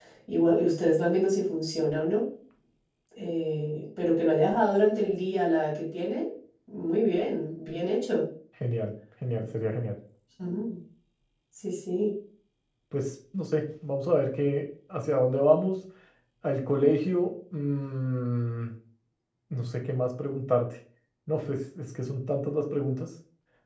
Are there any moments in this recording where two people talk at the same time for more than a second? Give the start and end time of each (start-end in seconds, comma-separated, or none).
none